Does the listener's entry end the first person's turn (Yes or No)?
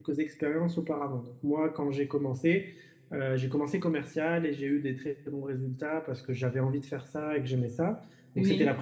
No